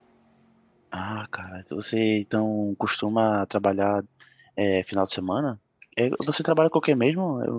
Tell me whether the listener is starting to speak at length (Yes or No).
No